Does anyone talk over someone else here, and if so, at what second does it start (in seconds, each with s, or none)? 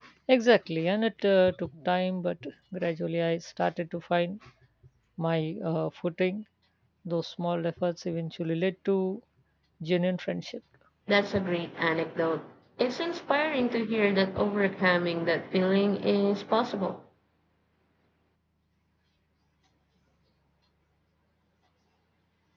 none